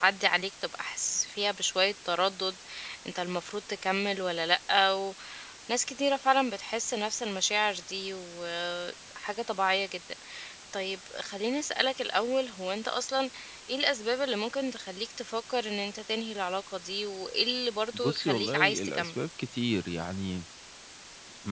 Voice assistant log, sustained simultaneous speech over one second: present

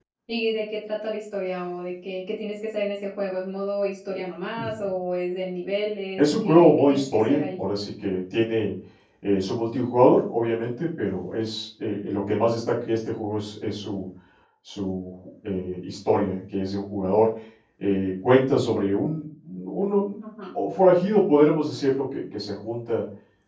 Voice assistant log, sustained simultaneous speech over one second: present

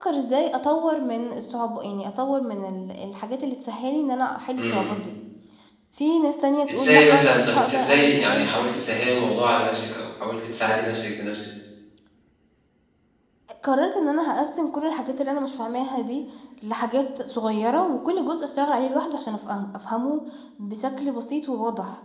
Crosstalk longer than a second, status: present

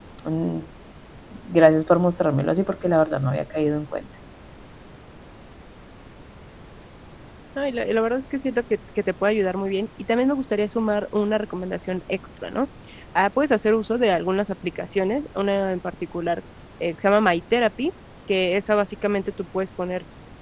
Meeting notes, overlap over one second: none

